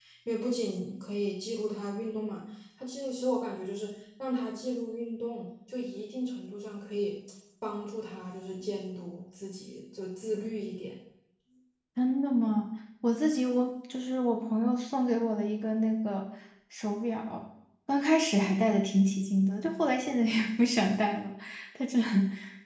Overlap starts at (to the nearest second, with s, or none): none